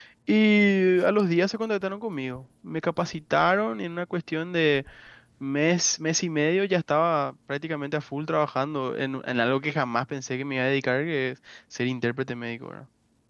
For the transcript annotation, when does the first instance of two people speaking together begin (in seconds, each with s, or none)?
none